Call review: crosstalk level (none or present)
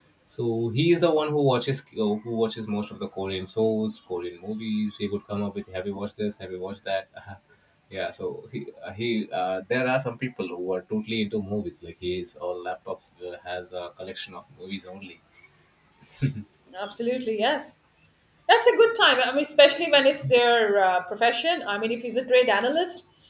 none